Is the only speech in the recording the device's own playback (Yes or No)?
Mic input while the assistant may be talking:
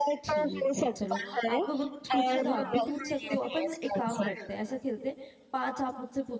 No